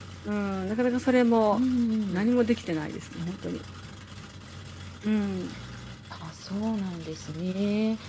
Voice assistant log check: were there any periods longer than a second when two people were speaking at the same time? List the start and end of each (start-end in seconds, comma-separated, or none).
none